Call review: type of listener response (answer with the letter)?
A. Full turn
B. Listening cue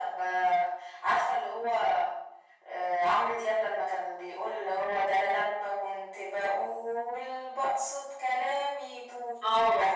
A